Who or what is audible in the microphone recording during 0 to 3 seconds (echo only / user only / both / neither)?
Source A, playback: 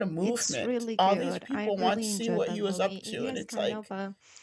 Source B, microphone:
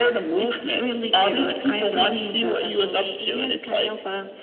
echo only